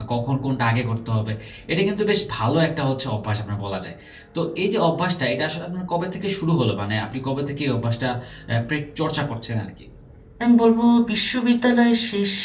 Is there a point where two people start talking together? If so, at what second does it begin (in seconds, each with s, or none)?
none